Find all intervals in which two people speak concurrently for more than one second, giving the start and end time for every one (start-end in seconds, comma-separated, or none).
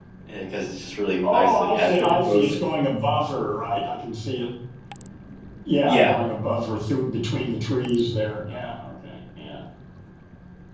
1.2-2.6